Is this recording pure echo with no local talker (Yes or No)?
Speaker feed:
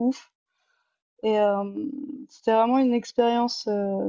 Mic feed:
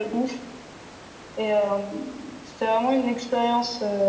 Yes